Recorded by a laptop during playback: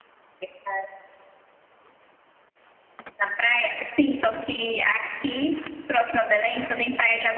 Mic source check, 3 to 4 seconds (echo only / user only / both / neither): echo only